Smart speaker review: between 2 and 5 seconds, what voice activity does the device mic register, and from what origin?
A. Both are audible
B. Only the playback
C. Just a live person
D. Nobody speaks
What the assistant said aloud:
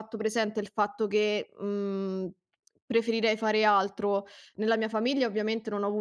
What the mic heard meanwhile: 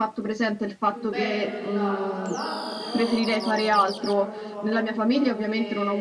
A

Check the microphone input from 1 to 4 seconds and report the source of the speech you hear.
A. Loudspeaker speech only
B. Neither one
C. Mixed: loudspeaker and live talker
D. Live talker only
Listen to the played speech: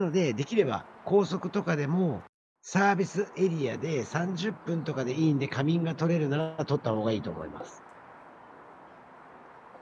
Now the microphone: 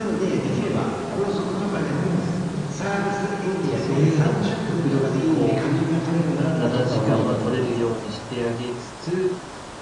C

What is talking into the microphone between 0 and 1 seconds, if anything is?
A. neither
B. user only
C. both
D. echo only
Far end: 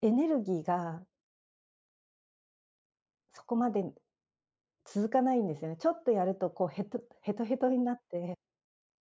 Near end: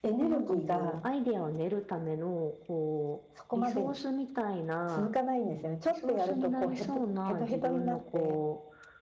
C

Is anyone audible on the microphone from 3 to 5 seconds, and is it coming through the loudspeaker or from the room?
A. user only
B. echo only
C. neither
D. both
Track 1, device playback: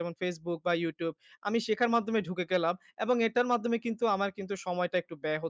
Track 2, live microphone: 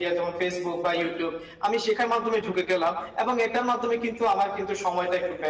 B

